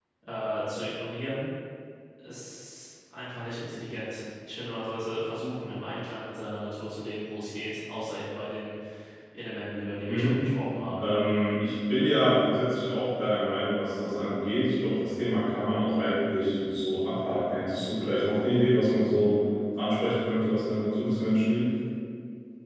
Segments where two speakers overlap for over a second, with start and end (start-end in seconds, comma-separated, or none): none